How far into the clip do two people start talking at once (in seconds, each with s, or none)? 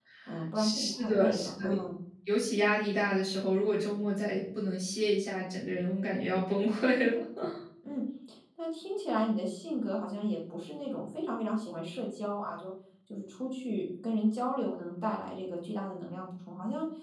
0.6 s